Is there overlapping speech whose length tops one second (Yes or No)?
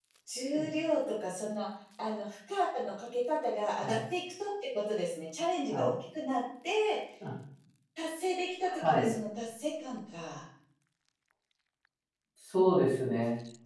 No